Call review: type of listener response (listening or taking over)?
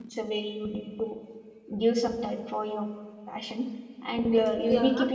listening